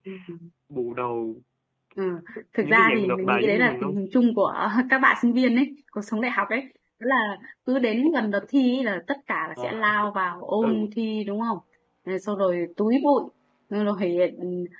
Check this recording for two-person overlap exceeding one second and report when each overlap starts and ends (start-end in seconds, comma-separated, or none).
2.6-3.9